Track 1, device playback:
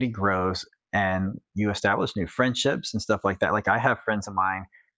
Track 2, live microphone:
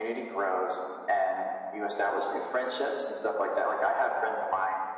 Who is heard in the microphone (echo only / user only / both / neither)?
echo only